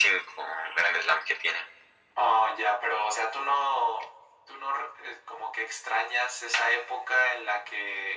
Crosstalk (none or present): none